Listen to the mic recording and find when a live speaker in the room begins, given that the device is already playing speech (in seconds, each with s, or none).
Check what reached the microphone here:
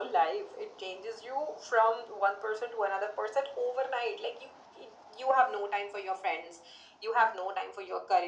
none